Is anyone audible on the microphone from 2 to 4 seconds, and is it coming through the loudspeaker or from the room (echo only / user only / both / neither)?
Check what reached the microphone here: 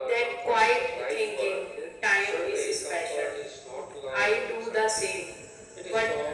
echo only